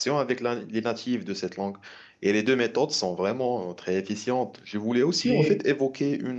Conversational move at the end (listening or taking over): listening